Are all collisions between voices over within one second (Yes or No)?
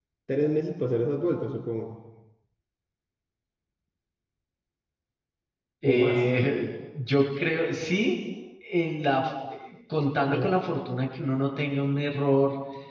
Yes